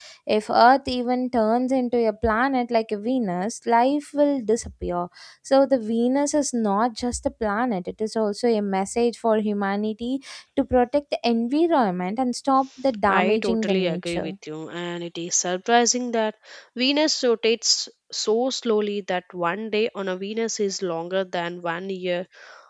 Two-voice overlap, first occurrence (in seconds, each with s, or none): 13.1 s